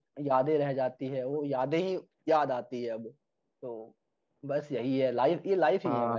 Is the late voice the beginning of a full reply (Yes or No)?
Yes